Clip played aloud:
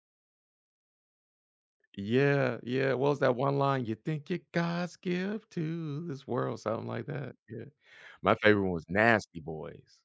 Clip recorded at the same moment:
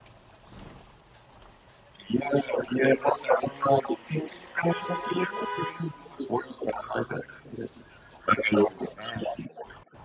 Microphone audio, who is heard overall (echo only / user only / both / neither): echo only